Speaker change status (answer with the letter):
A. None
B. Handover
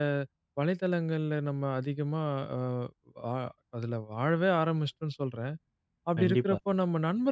A